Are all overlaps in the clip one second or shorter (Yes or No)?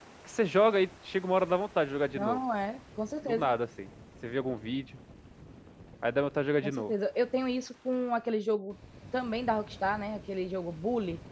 Yes